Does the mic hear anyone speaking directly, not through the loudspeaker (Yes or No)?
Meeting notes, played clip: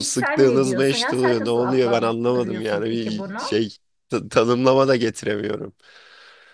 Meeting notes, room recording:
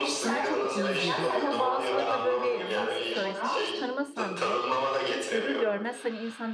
Yes